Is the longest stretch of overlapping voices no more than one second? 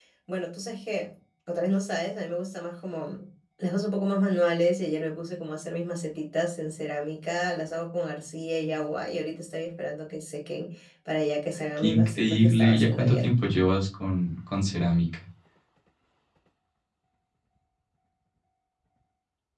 No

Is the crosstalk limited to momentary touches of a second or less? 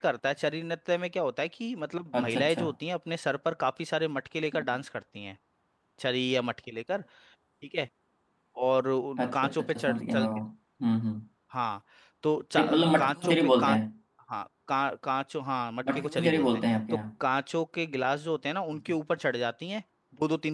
No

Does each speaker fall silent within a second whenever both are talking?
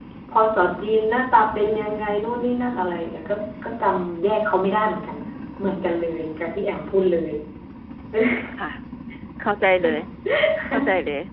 Yes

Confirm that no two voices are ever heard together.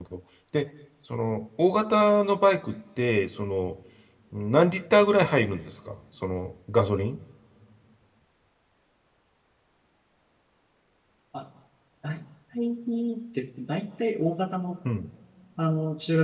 Yes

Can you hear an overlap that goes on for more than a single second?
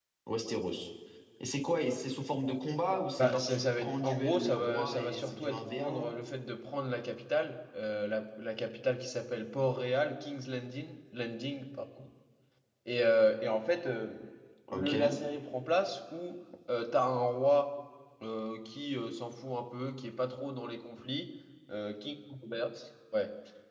Yes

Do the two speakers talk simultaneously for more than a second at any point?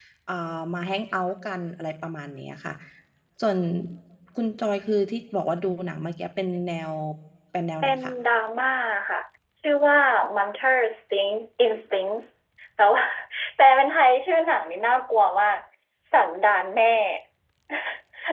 No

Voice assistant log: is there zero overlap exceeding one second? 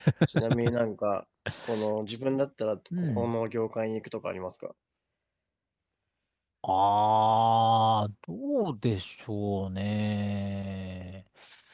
Yes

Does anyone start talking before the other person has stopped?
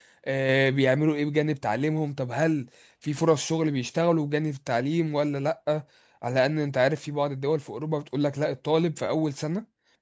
No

